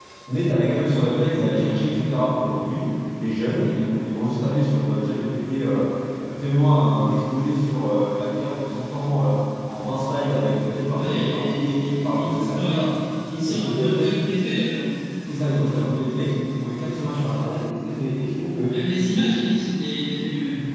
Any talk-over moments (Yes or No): Yes